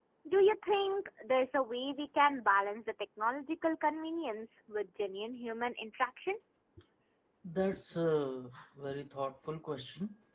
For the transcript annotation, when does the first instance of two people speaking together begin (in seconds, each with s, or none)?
none